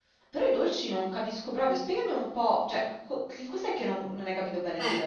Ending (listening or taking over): taking over